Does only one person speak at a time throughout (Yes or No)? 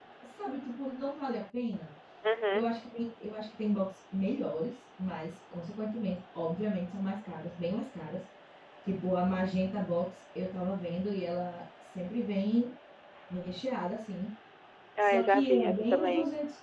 No